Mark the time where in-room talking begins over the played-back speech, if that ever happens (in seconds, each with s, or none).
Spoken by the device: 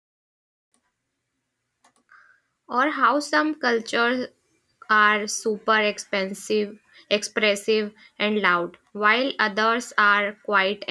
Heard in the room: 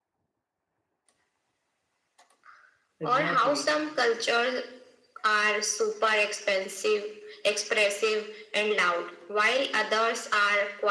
3.0 s